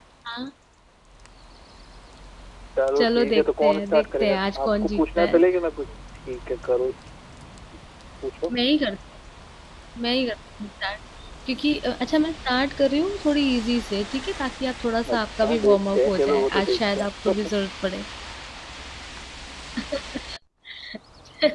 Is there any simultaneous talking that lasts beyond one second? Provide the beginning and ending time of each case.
3.0-5.4, 15.1-17.5

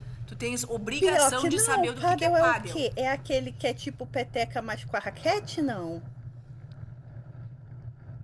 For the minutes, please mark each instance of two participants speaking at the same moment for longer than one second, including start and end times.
1.0-2.8

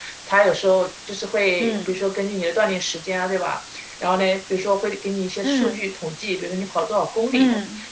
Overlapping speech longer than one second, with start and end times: none

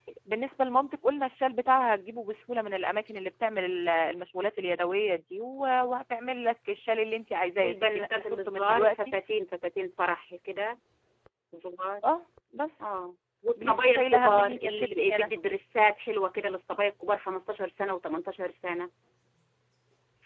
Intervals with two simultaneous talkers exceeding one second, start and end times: 7.6-9.0, 13.6-15.3

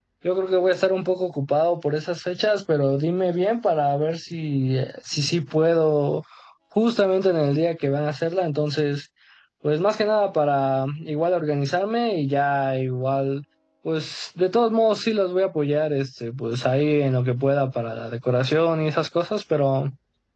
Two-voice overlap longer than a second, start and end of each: none

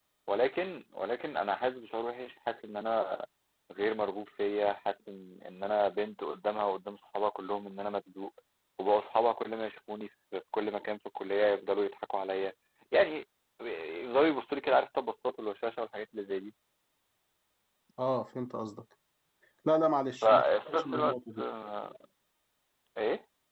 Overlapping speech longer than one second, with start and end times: 20.2-21.4

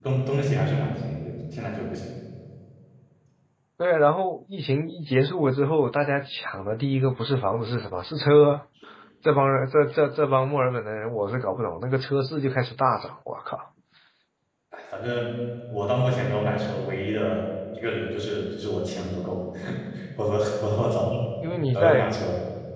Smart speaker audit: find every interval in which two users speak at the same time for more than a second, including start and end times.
none

